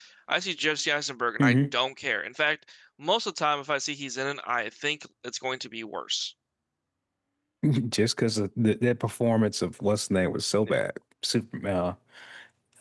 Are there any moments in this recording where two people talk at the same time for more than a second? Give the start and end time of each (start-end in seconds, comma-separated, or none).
none